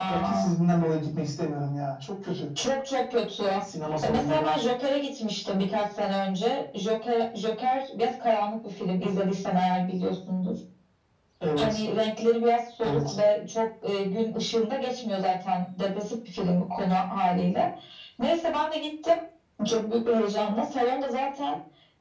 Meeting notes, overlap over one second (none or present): none